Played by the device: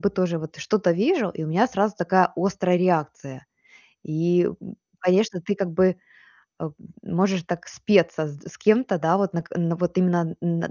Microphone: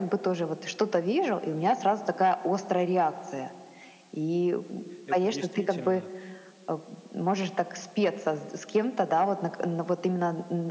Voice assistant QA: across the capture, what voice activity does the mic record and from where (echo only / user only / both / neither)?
both